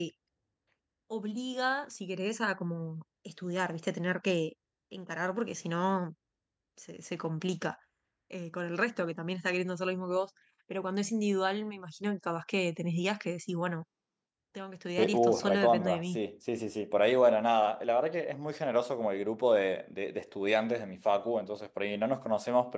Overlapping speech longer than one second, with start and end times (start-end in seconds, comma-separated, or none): 15.0-16.2